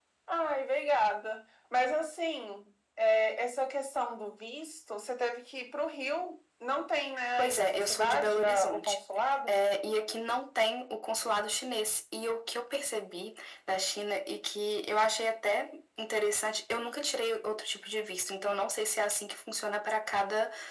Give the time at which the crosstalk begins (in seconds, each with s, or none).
7.4 s